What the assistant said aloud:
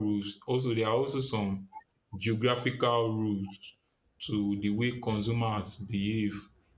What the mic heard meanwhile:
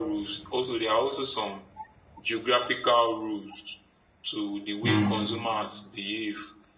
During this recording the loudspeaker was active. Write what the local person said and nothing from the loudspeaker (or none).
mm,